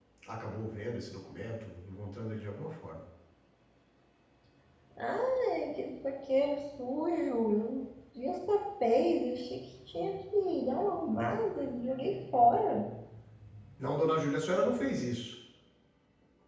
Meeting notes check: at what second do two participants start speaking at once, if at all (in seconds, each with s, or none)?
none